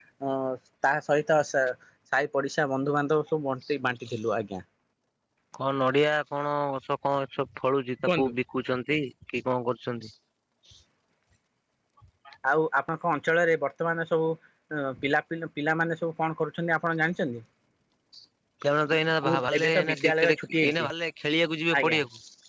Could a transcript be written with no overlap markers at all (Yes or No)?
No